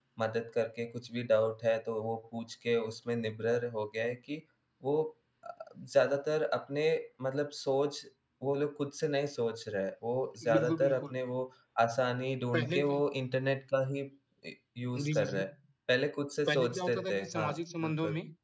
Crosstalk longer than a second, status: present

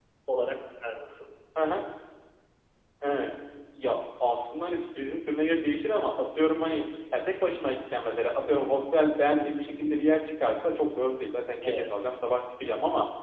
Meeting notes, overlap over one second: none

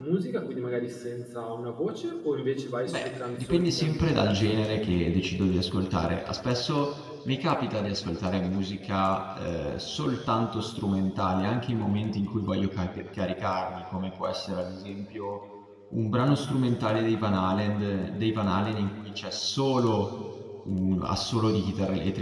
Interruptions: present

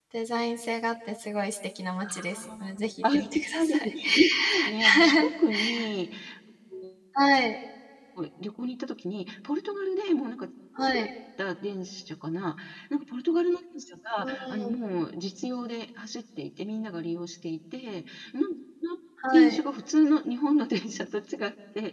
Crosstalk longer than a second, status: present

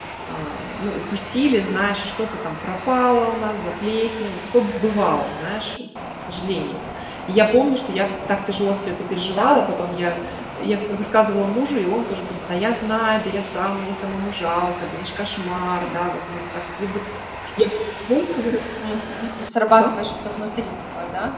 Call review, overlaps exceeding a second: none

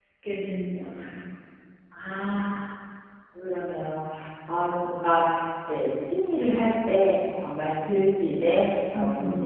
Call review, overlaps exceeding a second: none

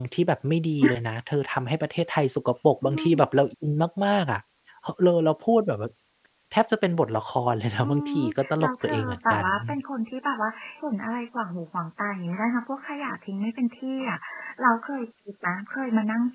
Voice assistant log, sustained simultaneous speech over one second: present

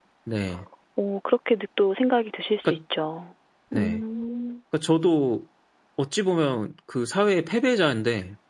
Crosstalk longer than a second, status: none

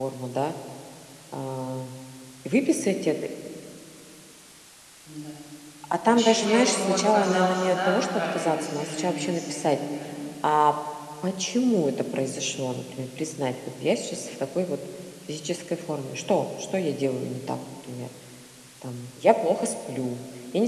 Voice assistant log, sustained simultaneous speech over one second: present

